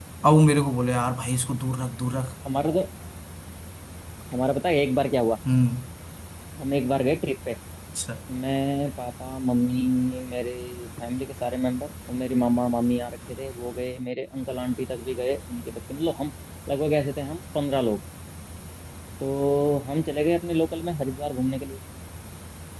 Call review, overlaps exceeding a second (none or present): none